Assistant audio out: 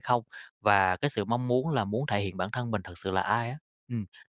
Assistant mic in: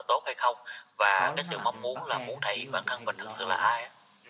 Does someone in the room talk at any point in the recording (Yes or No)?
Yes